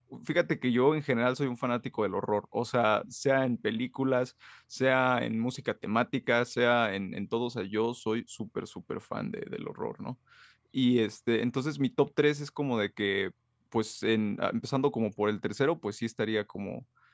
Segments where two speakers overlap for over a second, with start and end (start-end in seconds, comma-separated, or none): none